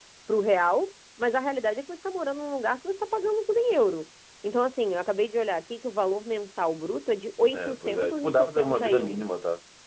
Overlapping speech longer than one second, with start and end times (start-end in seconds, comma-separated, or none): 7.5-9.2